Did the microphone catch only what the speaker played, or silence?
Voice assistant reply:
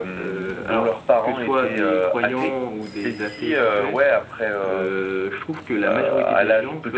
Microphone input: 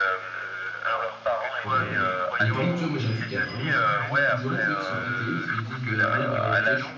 No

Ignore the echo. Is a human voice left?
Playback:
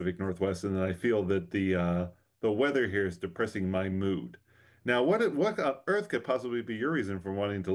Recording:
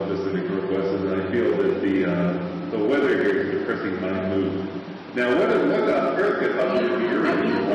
Yes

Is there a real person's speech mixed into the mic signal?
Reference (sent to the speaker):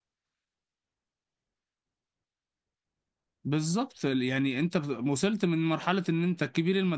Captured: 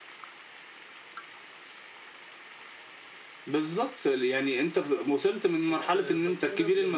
Yes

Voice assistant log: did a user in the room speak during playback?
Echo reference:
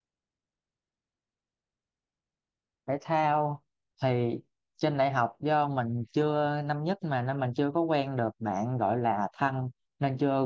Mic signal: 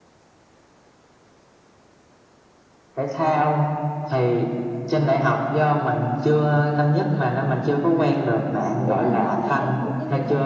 Yes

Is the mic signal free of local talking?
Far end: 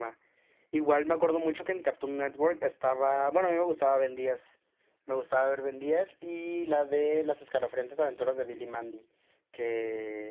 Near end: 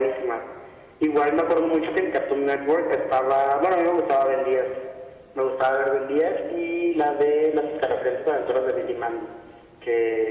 Yes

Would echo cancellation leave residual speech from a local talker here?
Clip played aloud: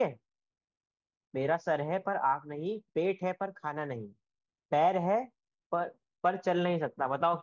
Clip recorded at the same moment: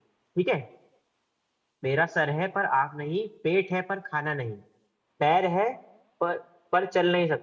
No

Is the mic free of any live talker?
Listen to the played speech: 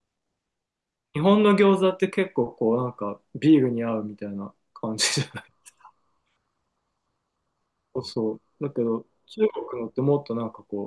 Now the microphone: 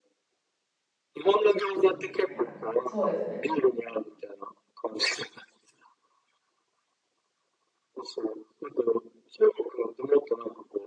No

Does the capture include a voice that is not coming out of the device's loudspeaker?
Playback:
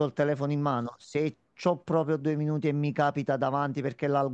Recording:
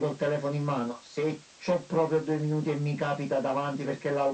No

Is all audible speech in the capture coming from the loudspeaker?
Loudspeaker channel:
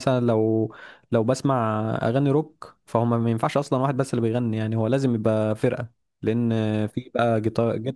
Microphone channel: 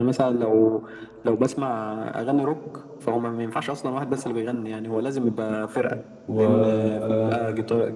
No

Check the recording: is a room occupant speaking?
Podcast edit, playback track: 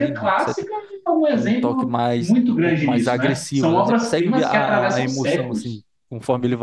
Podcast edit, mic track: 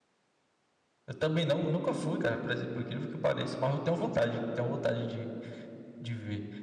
Yes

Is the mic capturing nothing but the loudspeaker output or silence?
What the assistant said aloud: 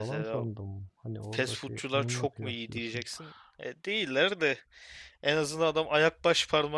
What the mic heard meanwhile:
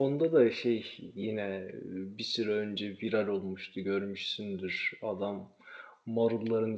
No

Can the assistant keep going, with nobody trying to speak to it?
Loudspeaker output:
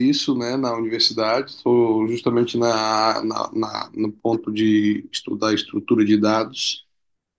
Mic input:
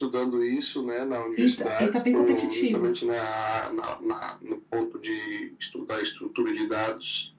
No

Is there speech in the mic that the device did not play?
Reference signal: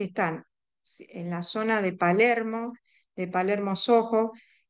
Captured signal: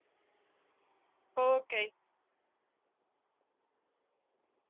Yes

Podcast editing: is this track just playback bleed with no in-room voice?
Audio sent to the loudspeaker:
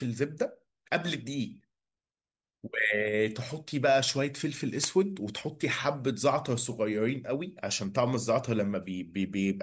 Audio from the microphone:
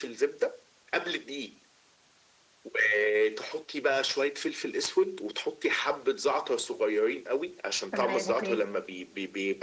No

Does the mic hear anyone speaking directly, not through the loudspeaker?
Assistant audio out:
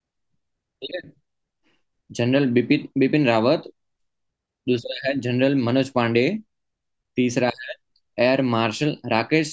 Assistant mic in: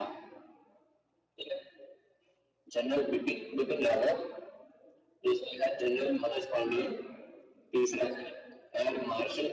No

